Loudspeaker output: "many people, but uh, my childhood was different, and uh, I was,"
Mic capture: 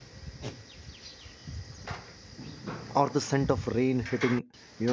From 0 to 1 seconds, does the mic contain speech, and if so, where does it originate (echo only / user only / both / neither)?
neither